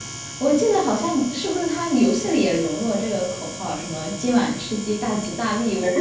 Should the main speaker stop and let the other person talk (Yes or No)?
Yes